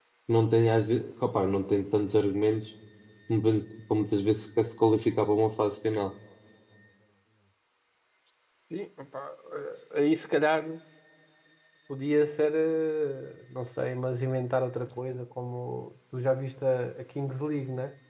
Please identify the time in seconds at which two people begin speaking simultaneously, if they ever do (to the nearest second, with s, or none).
none